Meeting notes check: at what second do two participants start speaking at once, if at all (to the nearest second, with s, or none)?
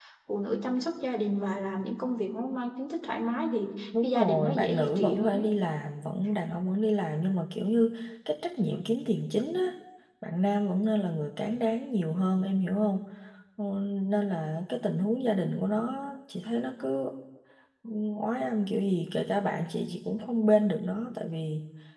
4 s